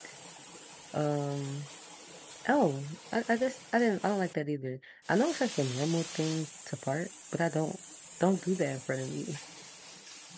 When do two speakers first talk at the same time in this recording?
none

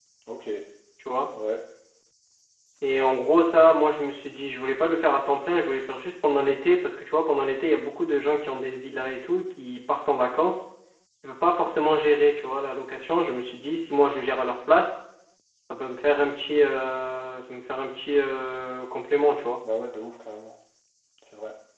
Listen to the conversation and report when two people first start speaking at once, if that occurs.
none

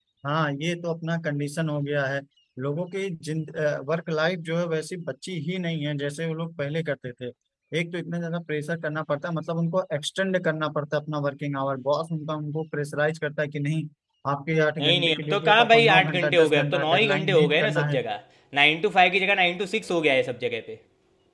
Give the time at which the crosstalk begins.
15 s

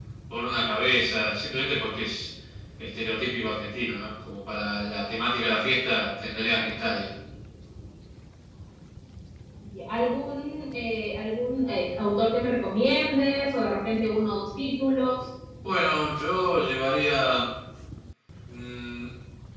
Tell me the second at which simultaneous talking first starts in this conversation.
none

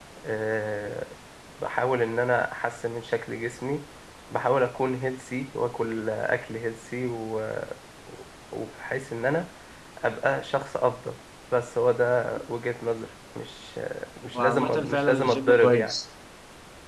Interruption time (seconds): 14 s

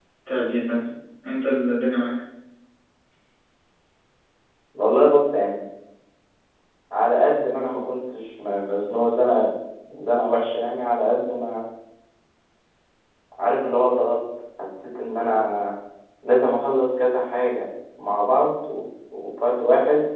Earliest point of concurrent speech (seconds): none

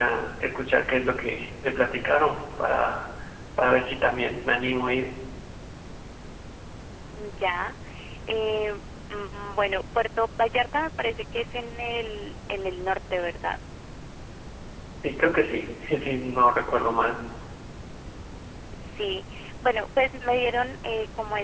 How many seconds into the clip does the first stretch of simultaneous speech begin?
none

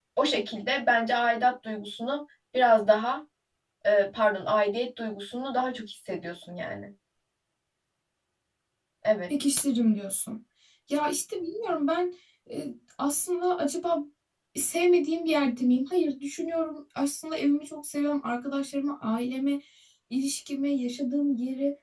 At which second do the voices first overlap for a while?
none

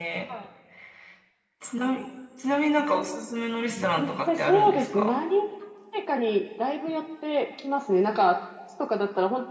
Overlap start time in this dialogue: 4 s

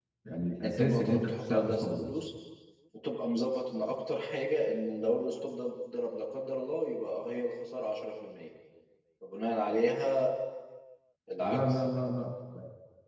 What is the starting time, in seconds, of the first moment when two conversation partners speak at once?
1 s

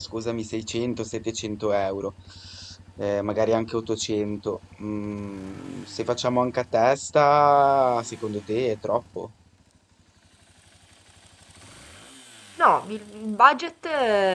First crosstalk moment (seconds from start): none

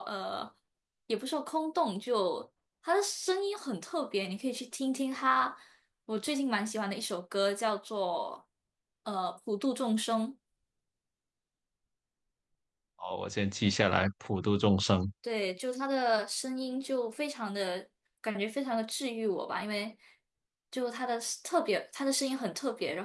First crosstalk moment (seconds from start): none

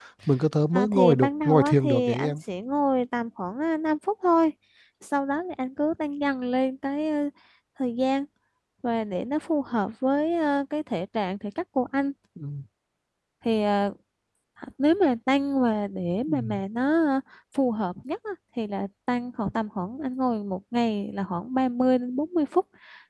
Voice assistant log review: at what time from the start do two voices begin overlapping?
1 s

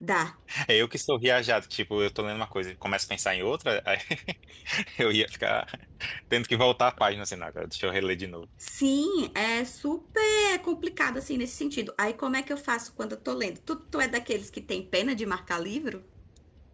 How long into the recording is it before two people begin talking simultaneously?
none

